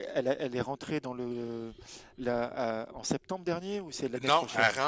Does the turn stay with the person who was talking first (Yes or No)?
No